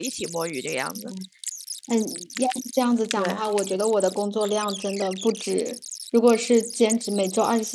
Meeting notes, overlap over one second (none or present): none